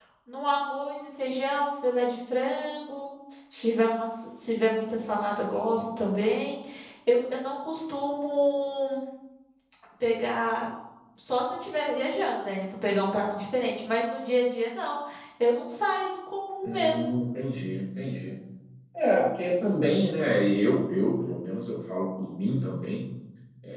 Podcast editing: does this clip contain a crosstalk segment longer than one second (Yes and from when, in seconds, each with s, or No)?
No